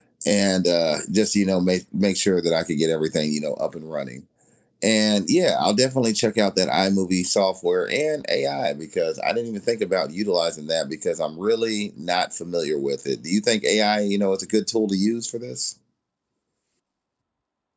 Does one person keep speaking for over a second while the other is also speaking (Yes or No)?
No